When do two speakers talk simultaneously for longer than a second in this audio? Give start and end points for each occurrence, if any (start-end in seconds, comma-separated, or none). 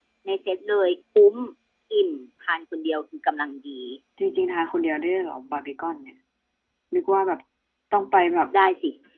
none